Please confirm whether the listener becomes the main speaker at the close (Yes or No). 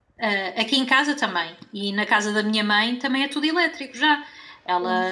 No